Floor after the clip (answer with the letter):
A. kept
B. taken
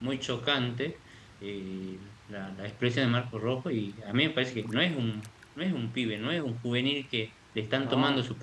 A